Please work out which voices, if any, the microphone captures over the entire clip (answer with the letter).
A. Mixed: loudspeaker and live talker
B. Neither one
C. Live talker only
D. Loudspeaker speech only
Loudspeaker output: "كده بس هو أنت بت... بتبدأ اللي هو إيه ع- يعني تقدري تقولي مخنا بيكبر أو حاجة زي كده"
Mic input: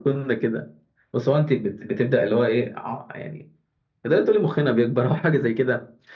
D